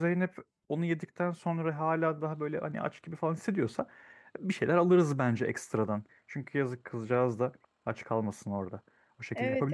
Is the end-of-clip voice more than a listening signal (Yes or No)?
Yes